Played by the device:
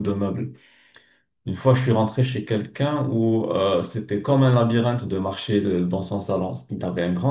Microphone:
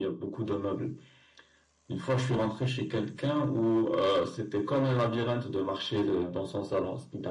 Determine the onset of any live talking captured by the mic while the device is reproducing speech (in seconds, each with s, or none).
none